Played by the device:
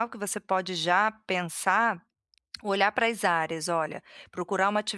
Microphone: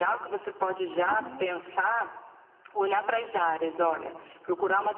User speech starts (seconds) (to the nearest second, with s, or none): 1 s